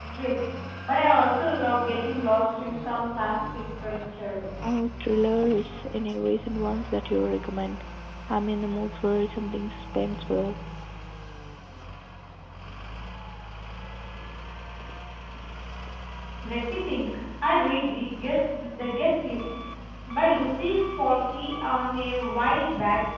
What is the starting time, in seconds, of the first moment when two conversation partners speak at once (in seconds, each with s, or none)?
none